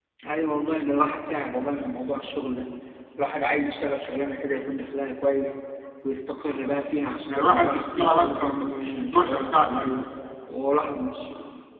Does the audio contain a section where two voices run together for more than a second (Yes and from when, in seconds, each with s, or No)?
Yes, from 7.3 s